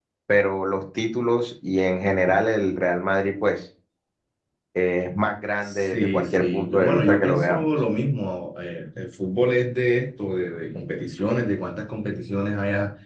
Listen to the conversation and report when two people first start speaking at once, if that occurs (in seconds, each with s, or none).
5.6 s